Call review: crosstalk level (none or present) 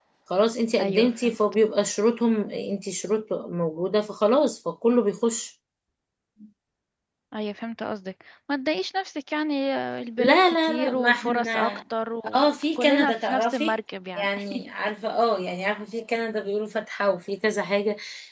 present